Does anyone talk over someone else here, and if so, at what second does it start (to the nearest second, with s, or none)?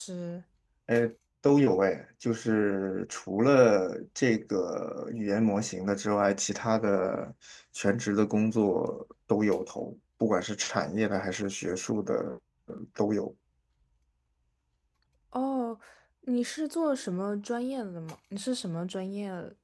none